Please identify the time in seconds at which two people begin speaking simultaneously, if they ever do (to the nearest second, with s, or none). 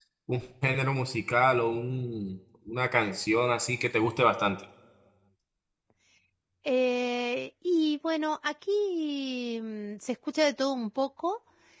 none